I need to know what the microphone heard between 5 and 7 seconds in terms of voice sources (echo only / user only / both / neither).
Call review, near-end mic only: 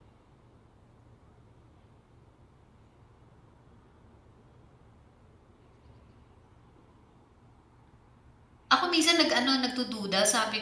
neither